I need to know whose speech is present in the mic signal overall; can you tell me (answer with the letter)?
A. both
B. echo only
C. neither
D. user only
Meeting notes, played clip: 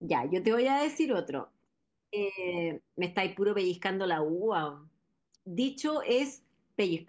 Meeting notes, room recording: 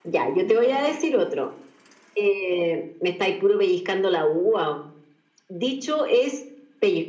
A